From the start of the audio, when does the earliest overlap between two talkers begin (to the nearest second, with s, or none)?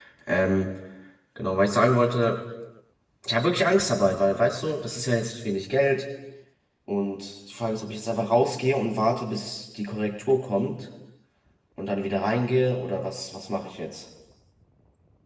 none